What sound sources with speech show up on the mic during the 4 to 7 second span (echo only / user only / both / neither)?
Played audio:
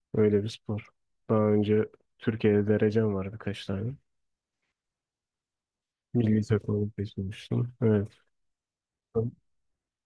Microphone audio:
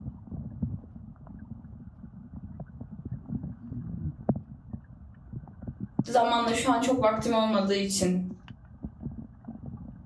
user only